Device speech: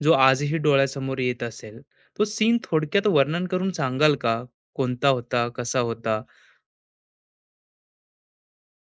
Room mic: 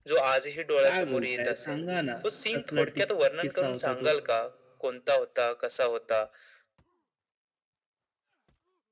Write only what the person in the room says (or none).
काय बोलताय? सांगा ना, कसला टिस किस्सा होता तो?